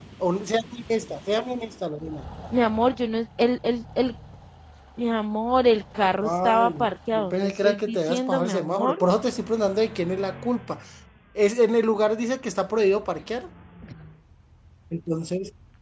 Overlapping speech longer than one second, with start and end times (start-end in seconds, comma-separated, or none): 6.2-9.0